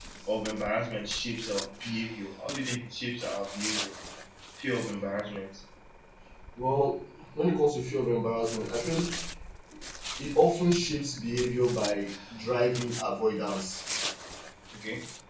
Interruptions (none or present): none